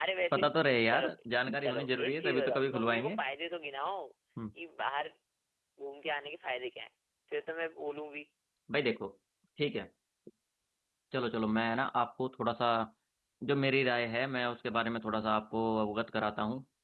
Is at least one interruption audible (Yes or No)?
Yes